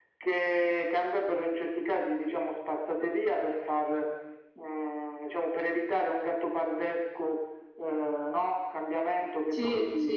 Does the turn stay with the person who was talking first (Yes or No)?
Yes